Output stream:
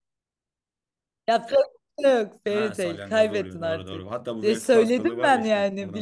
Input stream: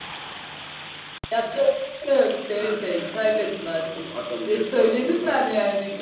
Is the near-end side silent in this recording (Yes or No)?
Yes